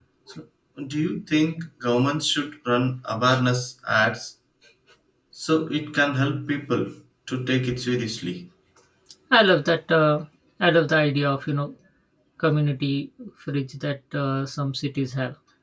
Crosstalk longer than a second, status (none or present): none